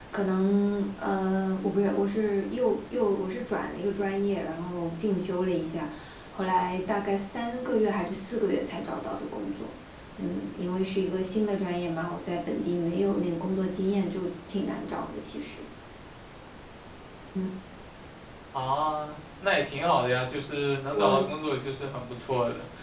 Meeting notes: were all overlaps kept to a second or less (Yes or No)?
Yes